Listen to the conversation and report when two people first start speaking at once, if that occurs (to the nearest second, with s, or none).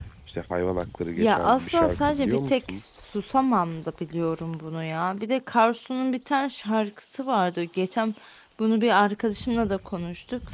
1 s